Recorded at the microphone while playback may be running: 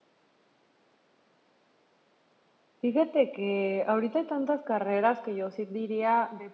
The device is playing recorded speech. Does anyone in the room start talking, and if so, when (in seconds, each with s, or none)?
2.8 s